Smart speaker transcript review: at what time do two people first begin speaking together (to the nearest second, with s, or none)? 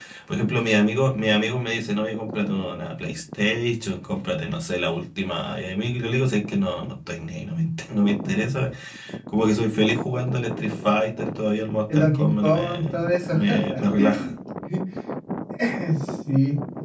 12 s